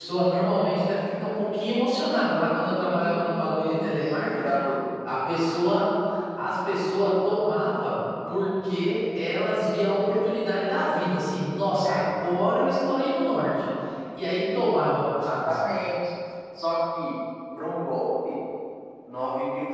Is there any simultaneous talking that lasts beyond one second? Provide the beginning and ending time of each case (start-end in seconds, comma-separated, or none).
2.9-4.6